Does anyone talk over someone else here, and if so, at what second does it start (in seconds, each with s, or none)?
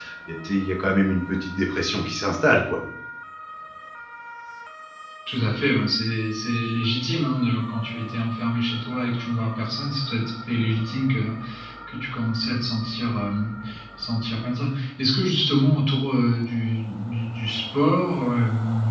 none